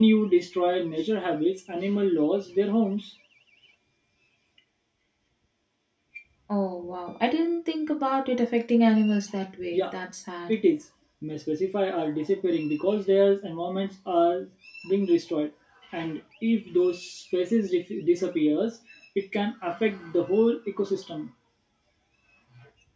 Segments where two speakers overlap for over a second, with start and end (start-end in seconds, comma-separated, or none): none